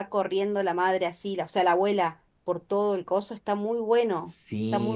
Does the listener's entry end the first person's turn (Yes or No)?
Yes